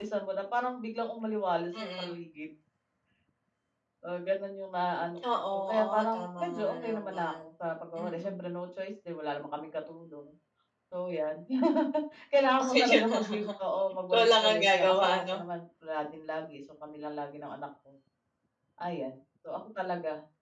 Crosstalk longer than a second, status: present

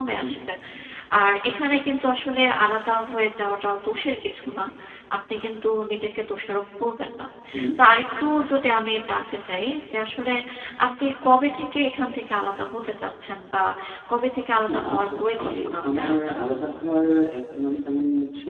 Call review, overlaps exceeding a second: present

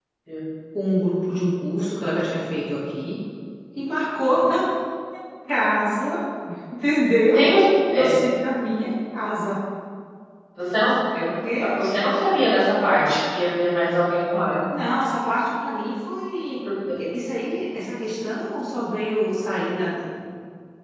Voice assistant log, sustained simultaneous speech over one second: none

